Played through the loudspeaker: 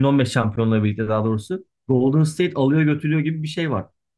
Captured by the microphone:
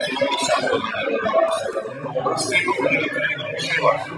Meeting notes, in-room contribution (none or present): present